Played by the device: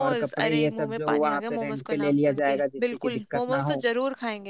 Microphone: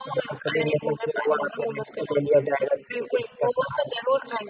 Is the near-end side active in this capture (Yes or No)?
No